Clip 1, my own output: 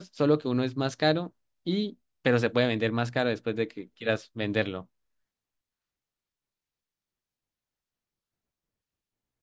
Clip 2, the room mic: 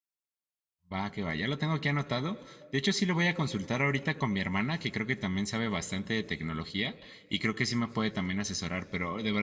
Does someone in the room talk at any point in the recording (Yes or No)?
Yes